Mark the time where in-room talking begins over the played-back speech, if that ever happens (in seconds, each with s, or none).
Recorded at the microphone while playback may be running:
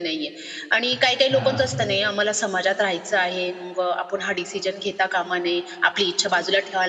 0.9 s